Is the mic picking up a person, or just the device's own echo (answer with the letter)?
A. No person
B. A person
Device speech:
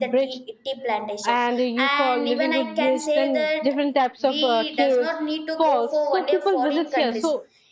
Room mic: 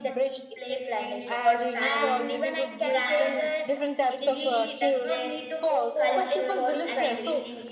B